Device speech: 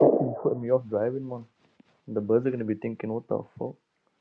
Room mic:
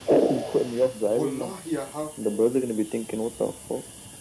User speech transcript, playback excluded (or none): Wallahi, I have, bro.